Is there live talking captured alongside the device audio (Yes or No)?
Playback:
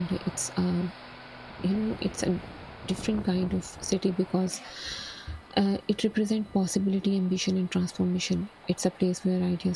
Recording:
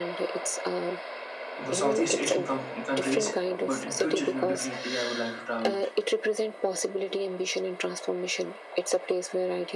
Yes